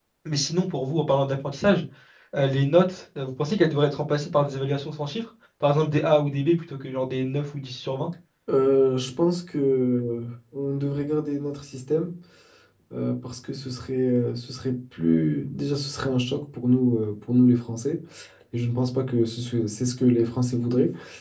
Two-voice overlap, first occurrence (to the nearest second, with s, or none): none